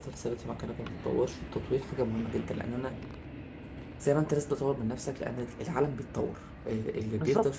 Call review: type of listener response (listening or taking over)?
taking over